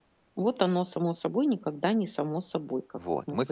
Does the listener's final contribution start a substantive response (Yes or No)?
Yes